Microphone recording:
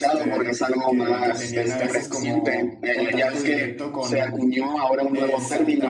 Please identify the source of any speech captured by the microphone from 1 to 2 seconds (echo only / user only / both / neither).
both